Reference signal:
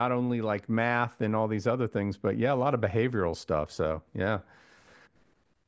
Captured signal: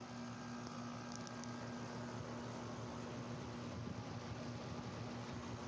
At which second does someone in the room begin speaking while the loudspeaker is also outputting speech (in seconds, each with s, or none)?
none